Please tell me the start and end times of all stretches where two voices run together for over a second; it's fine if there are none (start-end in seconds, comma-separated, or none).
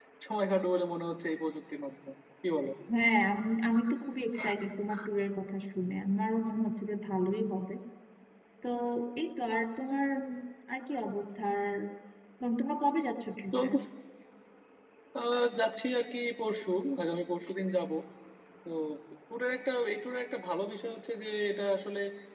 none